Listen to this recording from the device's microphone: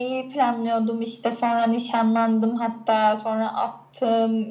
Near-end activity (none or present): none